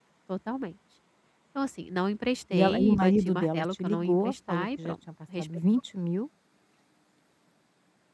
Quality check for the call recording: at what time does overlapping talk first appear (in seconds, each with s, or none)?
2.5 s